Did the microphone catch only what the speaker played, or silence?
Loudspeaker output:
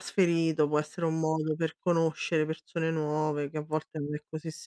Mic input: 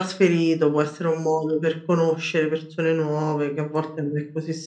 Yes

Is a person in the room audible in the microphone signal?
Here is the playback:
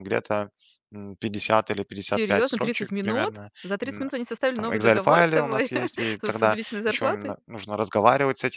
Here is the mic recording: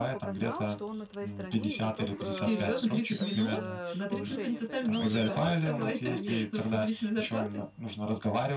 Yes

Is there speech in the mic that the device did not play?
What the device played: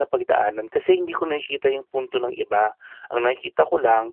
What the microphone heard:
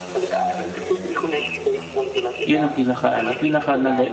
Yes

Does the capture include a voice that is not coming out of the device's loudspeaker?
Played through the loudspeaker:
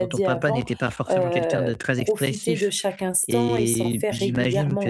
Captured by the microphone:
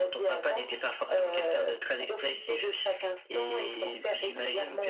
No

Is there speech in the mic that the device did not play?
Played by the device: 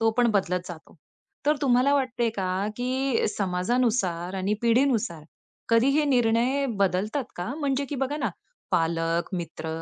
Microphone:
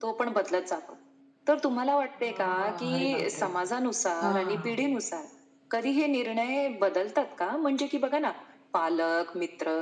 Yes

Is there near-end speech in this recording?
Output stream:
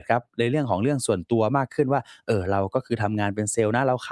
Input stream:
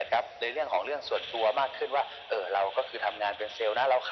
No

